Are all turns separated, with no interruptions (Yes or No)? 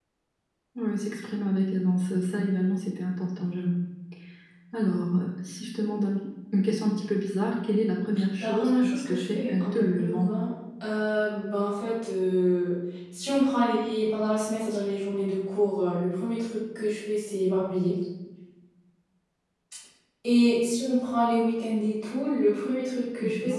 No